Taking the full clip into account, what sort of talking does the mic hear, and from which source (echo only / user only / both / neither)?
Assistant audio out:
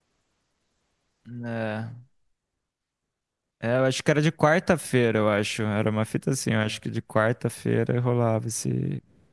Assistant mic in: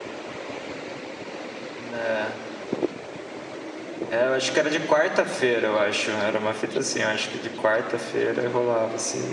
echo only